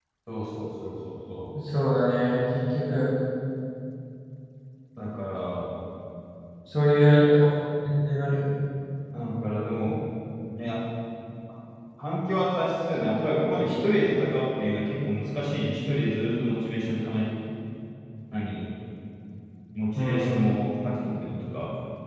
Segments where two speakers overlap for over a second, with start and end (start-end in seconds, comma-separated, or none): none